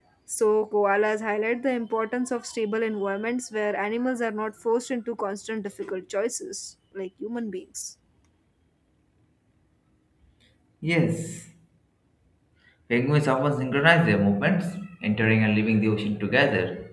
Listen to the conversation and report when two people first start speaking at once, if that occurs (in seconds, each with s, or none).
none